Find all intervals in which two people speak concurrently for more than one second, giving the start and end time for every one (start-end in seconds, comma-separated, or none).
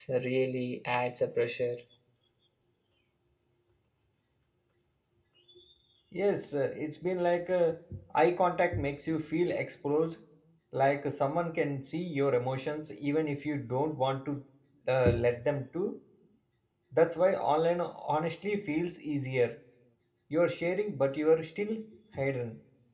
none